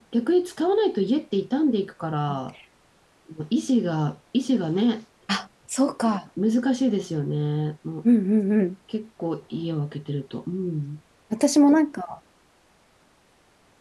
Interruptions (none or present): none